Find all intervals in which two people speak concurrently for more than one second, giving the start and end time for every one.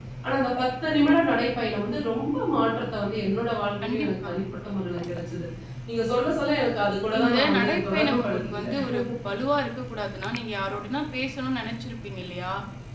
7.2-8.8

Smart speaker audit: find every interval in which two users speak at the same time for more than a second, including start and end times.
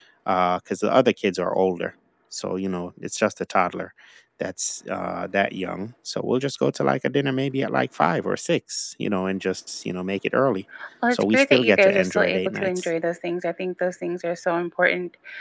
11.1-12.9

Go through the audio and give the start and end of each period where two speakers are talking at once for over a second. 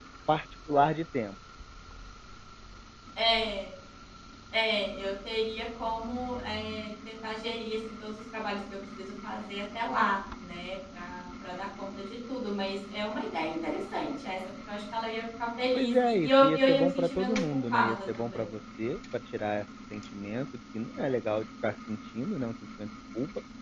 15.7-18.4

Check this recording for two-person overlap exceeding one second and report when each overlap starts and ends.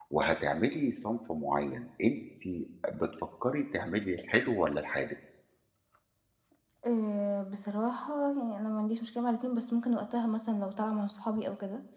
none

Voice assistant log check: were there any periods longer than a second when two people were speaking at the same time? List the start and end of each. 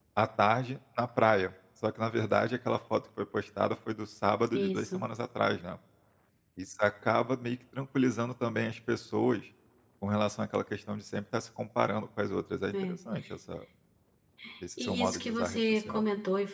14.8-16.0

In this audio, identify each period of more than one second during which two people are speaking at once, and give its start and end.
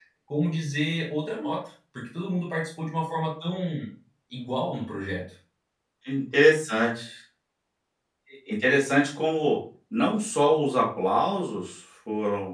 none

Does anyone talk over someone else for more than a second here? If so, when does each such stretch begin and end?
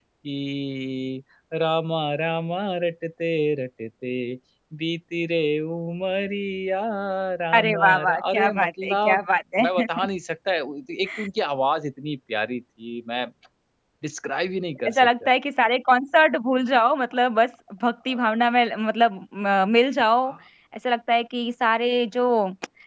7.5-9.2

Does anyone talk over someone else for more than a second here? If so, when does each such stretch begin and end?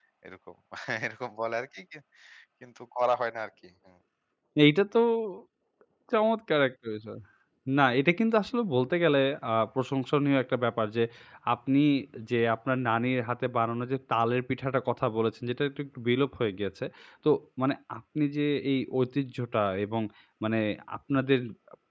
none

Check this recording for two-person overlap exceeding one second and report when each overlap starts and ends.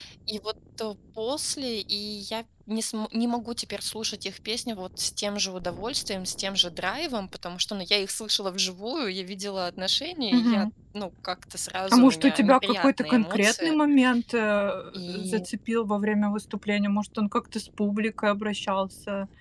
11.9-13.8

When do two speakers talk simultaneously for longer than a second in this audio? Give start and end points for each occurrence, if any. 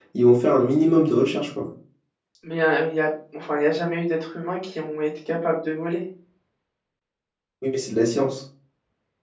none

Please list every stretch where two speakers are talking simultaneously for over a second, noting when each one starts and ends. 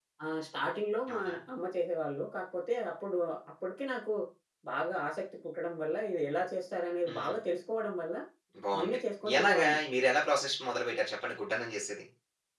none

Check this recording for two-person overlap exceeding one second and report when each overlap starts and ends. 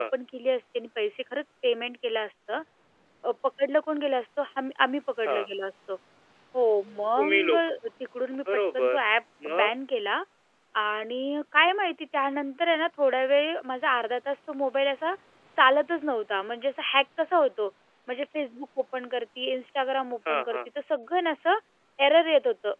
none

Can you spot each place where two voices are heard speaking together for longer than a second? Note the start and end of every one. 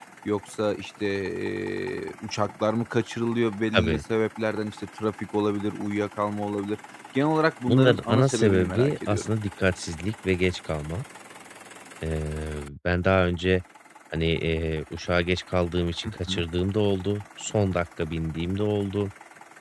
7.7-9.3

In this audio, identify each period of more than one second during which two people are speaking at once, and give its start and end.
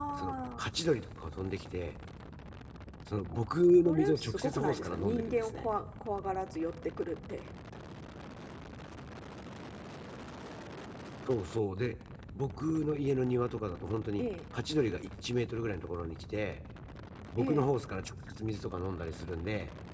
3.8-5.7

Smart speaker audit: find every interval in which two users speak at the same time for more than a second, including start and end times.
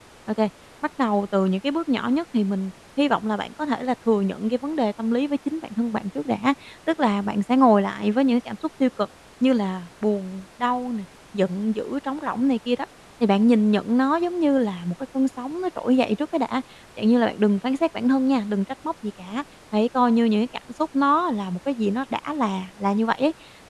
none

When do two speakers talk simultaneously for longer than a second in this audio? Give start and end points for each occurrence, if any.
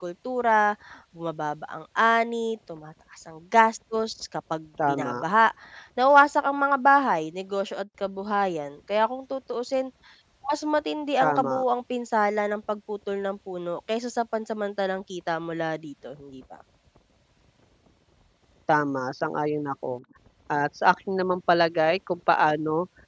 none

